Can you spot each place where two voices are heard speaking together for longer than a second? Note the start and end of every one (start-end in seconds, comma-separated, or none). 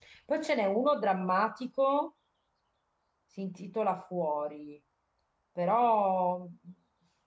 none